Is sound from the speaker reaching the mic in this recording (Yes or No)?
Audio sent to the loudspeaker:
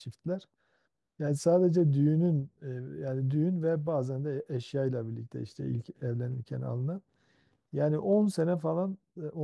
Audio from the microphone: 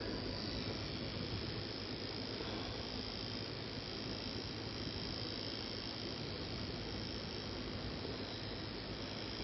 No